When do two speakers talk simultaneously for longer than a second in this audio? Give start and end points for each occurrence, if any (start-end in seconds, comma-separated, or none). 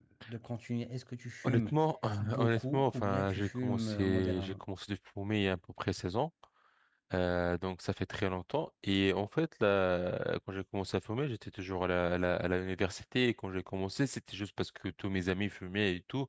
2.4-4.6